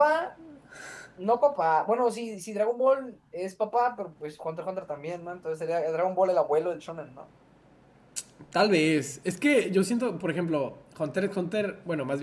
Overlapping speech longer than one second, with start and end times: none

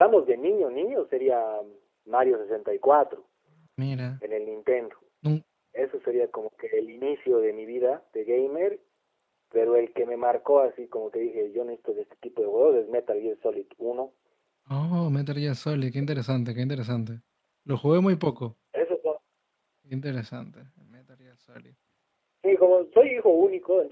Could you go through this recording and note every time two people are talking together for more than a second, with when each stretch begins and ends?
none

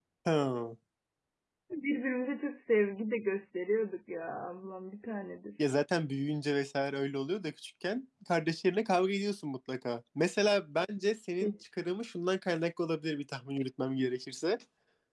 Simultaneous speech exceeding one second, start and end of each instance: none

